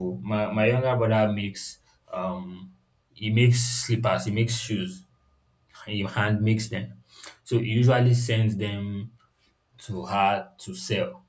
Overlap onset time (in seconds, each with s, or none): none